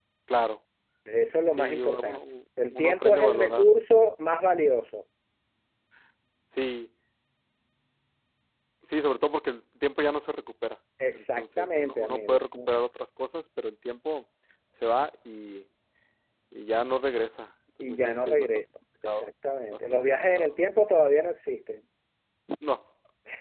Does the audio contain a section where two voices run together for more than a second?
Yes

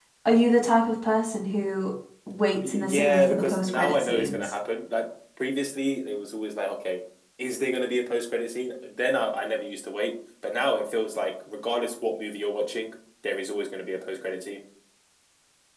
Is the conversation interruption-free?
No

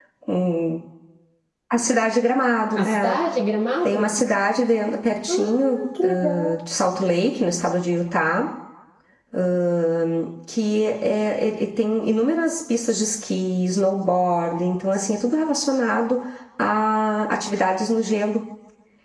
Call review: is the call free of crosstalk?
No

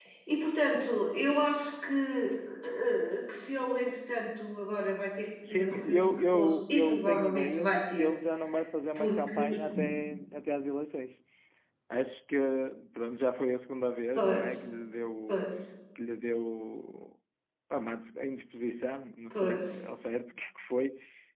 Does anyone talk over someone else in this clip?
Yes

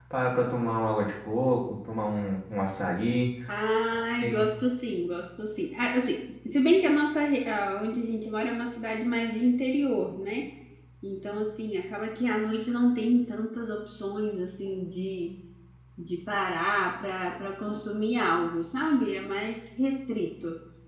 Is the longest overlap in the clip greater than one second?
No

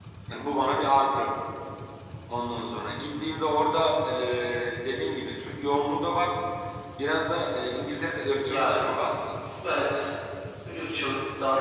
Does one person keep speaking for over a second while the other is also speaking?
No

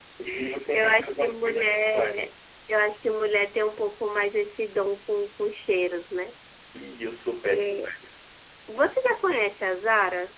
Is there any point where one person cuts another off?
Yes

